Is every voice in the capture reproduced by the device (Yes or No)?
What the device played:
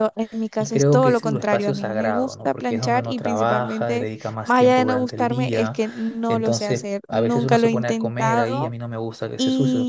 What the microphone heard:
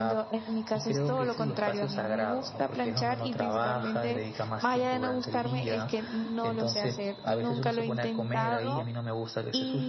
Yes